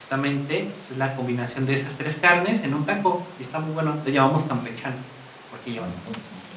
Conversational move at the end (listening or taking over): taking over